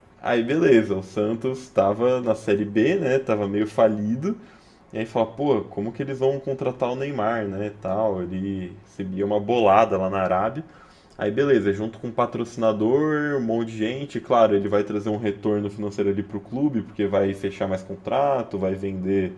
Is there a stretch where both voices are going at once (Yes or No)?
No